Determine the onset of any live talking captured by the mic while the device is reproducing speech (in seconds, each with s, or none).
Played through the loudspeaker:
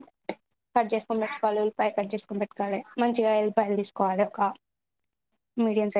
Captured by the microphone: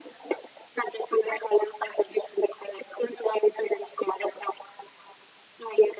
none